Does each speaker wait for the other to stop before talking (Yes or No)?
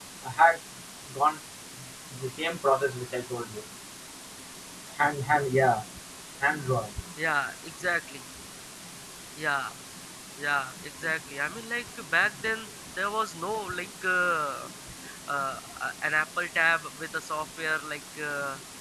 Yes